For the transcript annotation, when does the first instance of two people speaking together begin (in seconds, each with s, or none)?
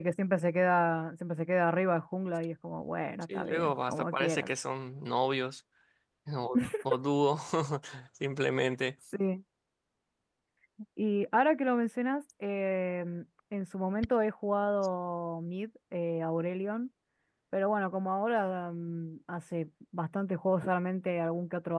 3.2 s